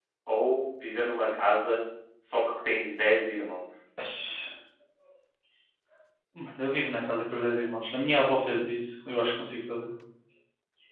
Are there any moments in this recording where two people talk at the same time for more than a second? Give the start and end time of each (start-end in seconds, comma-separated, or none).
none